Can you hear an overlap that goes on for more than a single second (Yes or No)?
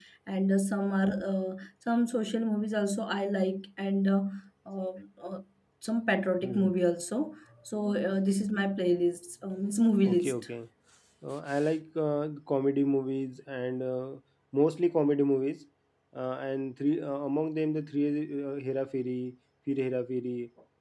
No